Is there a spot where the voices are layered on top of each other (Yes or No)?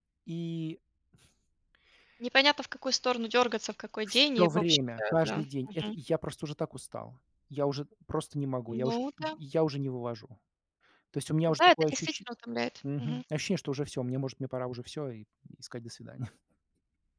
Yes